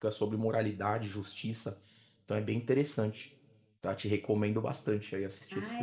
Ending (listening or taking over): taking over